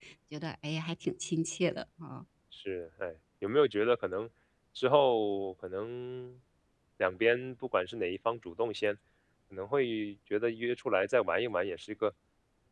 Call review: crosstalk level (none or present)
none